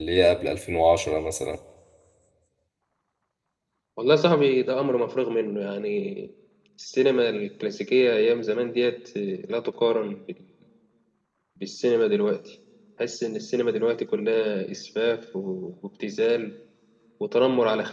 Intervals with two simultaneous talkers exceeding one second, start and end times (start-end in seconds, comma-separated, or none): none